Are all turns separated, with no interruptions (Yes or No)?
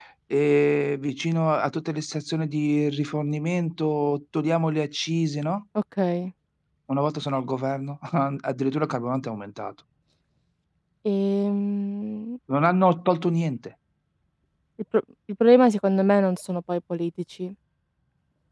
Yes